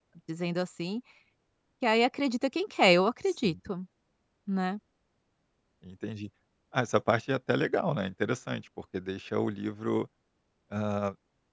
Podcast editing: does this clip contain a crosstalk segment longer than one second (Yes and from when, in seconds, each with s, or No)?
No